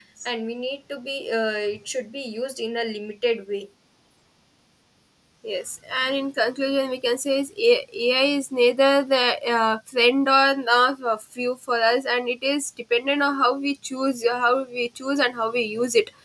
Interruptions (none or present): none